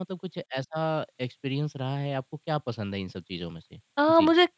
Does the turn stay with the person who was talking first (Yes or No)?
No